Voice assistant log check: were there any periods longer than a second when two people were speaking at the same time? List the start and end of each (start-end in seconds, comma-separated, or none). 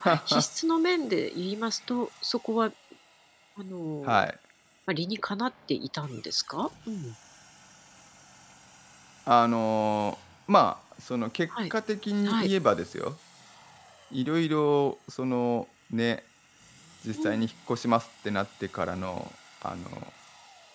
none